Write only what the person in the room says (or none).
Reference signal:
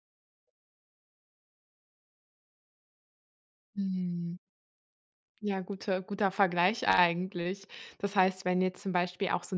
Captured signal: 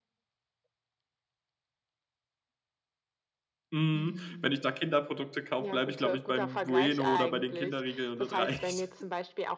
mhm, wenn ich da Kinderprodukte kaufe, bleibe ich, glaube ich, beim Bueno oder bei den Kinderriegeln und das reicht.